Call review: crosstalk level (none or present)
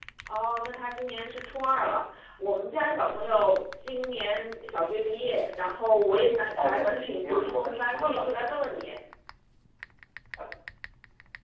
present